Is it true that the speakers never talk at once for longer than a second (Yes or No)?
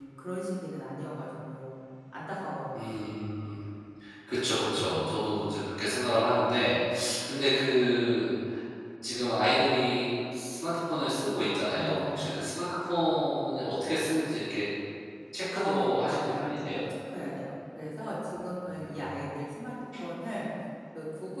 No